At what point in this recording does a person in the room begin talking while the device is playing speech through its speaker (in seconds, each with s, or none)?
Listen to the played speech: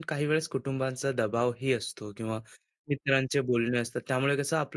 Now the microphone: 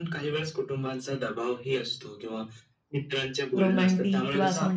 3.6 s